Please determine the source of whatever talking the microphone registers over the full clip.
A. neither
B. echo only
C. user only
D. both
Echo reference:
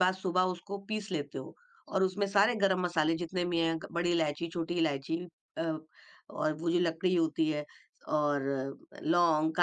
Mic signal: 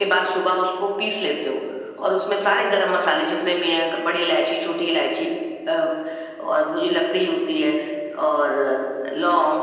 B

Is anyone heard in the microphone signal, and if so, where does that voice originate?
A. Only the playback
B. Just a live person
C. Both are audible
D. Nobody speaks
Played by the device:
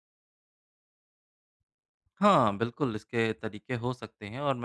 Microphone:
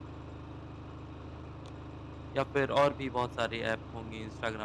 B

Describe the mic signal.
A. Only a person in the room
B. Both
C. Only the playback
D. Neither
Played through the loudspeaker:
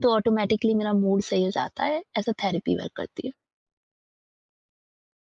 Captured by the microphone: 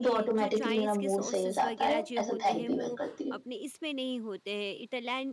B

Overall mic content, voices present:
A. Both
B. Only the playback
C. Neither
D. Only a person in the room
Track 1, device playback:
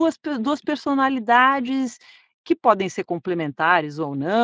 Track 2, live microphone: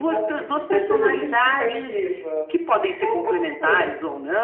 A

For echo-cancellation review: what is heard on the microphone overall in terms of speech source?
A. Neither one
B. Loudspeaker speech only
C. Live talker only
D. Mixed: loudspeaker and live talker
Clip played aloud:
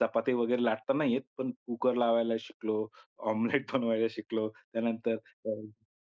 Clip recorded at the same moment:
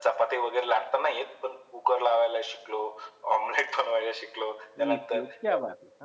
D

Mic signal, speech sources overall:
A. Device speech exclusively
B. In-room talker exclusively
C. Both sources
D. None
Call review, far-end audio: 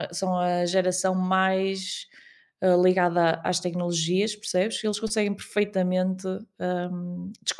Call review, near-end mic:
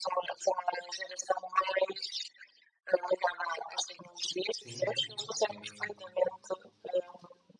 C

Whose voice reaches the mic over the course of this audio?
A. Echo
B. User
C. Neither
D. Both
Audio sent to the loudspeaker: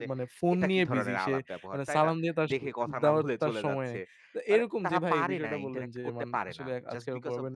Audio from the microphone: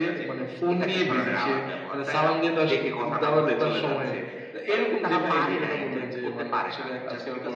A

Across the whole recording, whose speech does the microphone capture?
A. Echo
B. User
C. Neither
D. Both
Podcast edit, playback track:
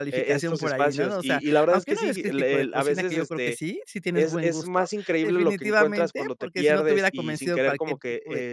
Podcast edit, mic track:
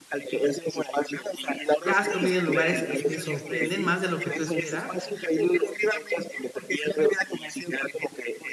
D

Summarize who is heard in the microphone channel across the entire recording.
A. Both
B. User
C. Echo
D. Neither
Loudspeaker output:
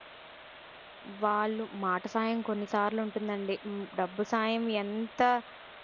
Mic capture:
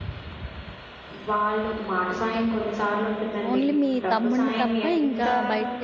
A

